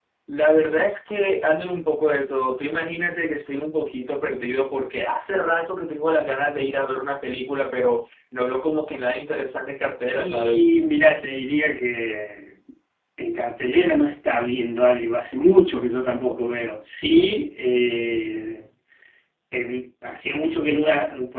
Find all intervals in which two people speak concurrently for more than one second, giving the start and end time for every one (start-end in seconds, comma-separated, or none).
none